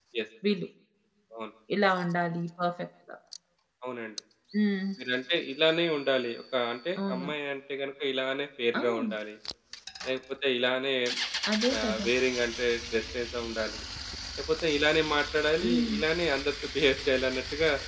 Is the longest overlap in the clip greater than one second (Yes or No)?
No